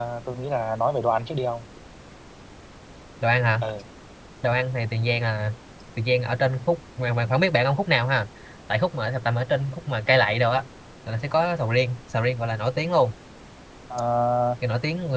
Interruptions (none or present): none